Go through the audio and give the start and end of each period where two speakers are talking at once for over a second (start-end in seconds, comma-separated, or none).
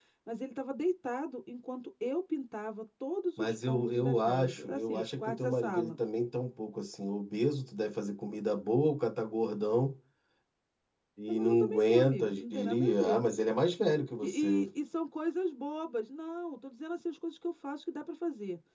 3.4-5.9, 11.3-13.2